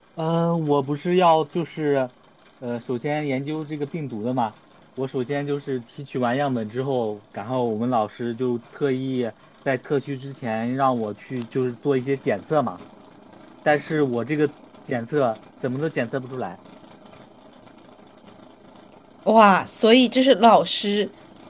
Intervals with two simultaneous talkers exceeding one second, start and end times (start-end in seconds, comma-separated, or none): none